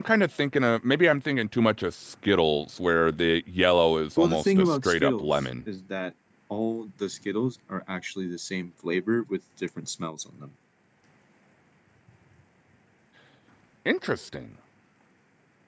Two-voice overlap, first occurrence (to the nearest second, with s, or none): 4 s